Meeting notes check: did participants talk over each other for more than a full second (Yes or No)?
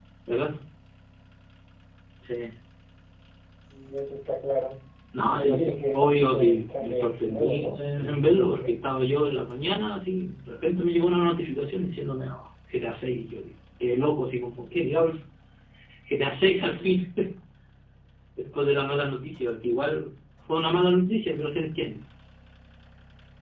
Yes